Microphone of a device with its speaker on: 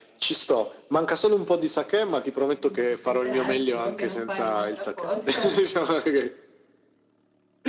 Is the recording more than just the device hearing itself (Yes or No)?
Yes